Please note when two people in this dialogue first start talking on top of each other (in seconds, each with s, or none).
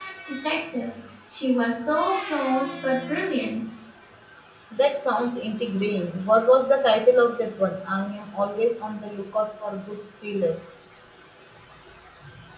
none